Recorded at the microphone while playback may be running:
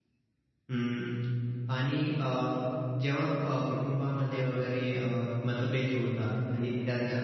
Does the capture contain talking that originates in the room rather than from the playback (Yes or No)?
Yes